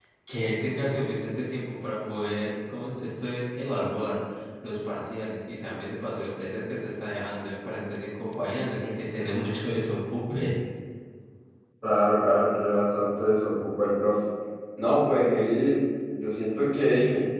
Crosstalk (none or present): none